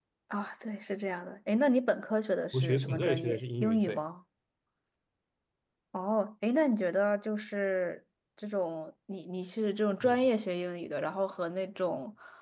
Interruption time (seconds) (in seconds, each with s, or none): 2.5 s